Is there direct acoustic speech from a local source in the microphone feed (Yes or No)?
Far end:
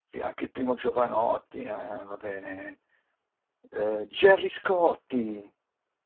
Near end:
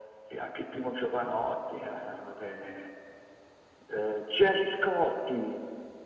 No